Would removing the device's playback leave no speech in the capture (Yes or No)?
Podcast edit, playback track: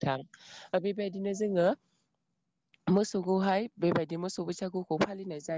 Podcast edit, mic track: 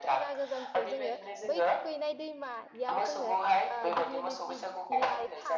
No